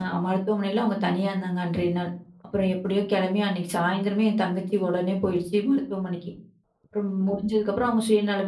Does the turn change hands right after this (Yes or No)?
No